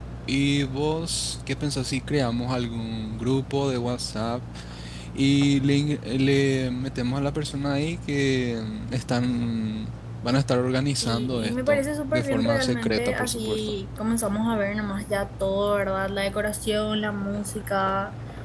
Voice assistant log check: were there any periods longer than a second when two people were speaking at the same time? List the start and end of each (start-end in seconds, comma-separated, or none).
11.0-13.7